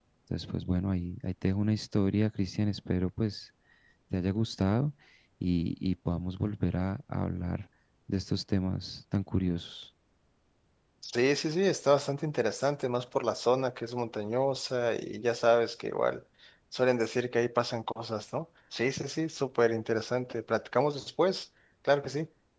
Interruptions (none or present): none